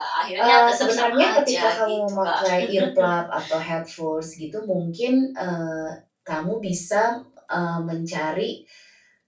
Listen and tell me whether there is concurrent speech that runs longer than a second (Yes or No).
Yes